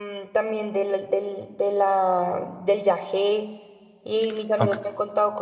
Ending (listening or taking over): listening